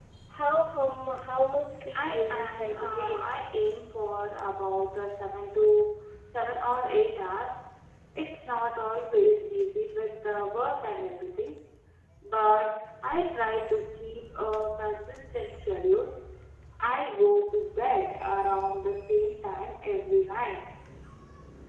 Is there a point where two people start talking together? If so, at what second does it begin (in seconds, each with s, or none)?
1.9 s